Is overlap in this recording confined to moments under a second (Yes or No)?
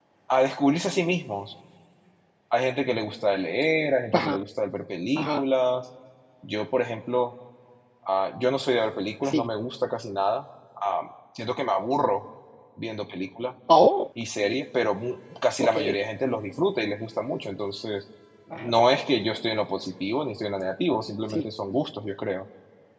Yes